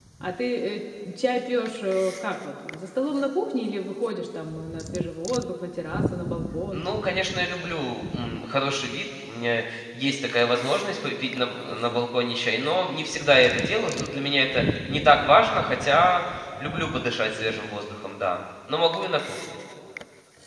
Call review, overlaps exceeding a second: none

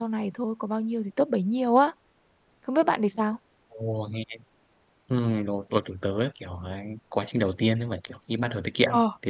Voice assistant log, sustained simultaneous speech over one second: none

